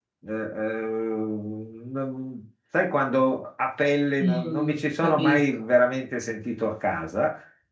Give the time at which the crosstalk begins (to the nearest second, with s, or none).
4 s